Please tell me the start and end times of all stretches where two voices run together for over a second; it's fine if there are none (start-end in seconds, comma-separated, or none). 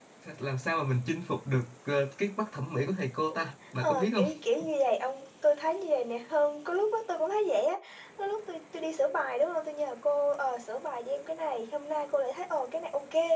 none